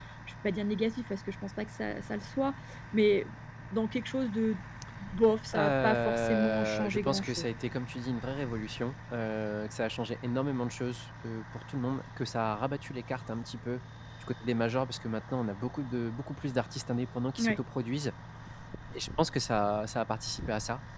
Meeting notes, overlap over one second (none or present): present